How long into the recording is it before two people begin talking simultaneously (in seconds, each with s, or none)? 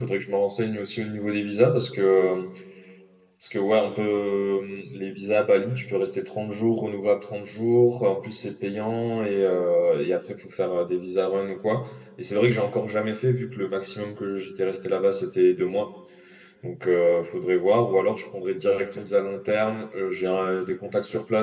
none